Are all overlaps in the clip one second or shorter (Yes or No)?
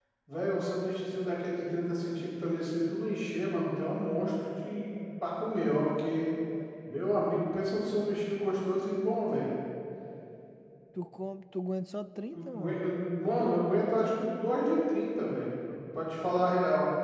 Yes